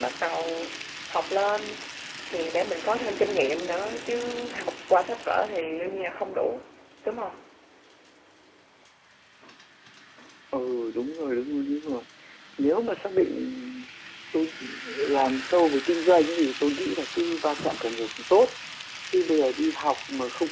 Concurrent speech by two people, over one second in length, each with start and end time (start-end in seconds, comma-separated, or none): none